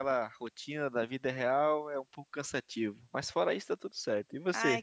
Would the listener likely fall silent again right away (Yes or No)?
No